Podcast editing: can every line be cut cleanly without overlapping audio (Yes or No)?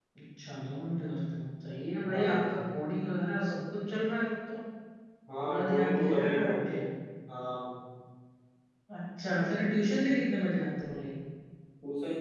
No